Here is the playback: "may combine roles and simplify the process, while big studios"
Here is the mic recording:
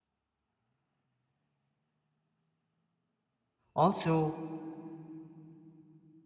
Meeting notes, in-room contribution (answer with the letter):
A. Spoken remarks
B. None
A